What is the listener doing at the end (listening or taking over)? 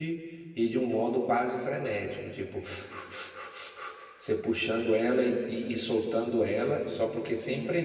listening